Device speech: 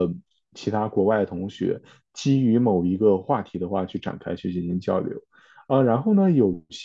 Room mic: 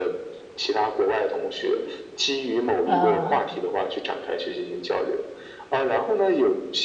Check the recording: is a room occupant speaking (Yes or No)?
Yes